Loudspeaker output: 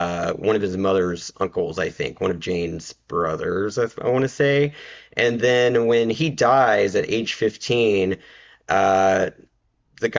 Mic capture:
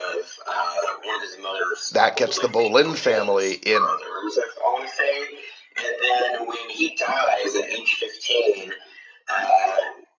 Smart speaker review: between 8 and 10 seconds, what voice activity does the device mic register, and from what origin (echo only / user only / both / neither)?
echo only